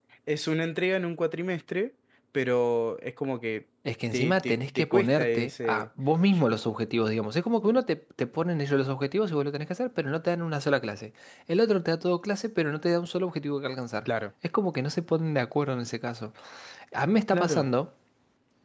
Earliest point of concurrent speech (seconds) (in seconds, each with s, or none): 4.1 s